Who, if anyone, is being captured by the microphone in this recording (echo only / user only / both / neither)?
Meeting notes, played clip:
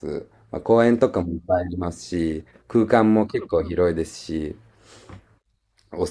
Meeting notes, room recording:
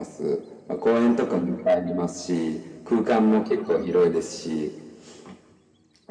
echo only